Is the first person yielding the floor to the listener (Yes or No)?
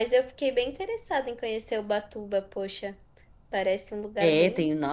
Yes